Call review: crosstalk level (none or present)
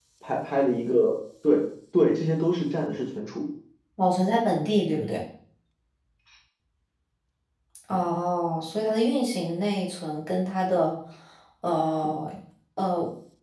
none